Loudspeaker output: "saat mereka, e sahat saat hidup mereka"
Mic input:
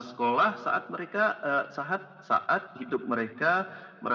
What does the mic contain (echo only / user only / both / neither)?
echo only